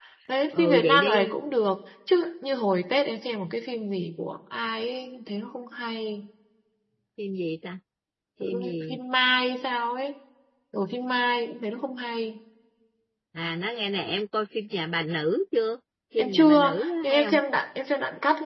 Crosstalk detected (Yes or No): Yes